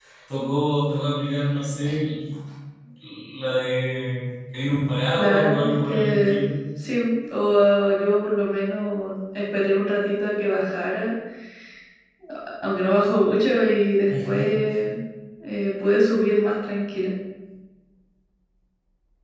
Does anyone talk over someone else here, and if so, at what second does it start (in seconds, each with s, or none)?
5.2 s